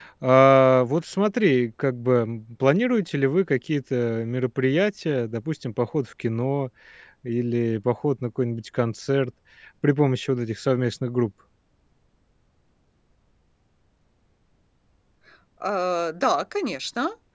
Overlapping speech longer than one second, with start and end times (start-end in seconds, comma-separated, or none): none